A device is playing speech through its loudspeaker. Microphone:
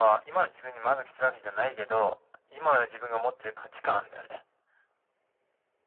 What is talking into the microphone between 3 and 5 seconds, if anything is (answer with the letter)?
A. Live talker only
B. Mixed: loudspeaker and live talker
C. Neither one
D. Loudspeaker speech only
D